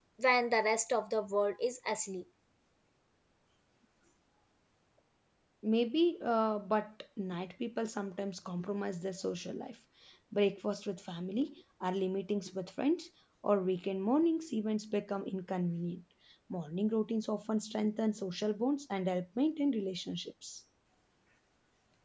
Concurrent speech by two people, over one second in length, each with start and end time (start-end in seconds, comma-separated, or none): none